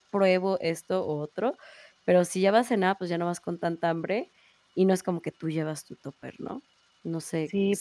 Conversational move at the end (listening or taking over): taking over